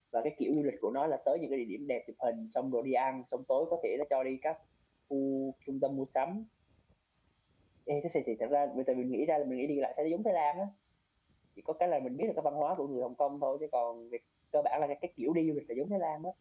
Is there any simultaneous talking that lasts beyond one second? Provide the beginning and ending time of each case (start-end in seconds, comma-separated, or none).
none